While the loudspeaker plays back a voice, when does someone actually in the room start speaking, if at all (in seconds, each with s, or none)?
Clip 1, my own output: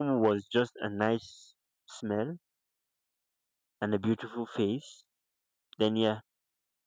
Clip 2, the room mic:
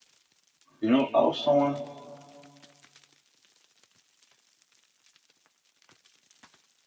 0.8 s